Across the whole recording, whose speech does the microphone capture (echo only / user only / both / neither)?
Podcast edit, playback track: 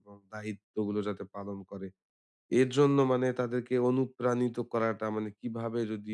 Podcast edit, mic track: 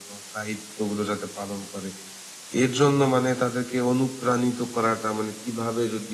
echo only